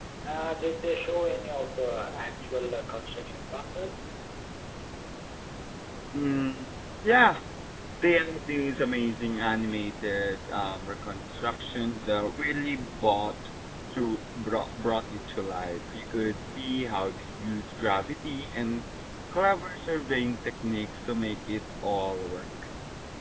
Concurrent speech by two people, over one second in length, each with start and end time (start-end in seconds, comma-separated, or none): none